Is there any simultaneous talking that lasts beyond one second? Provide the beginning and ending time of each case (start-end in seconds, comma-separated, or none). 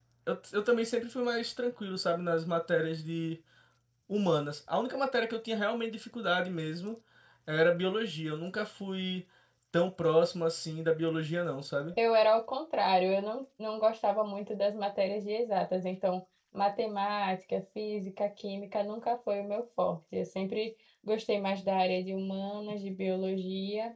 none